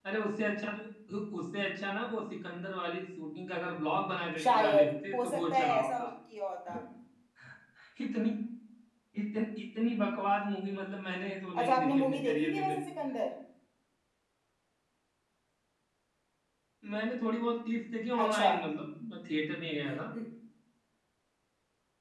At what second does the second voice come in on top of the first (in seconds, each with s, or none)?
4.4 s